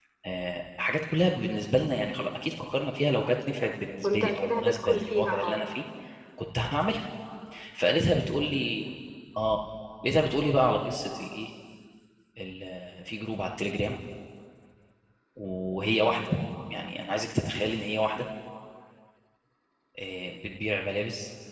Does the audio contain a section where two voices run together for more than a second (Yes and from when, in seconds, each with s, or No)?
Yes, from 4.0 s